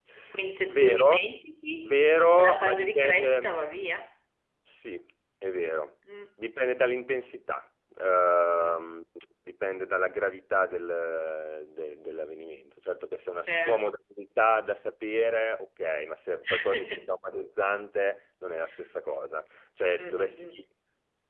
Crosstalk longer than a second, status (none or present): present